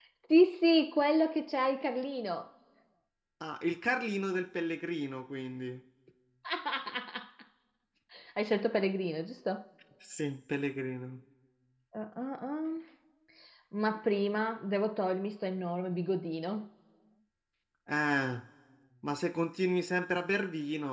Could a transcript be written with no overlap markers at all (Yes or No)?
Yes